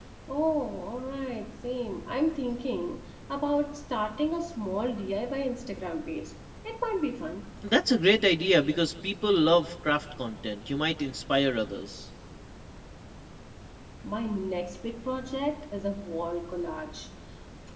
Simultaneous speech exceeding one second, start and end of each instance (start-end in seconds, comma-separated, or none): none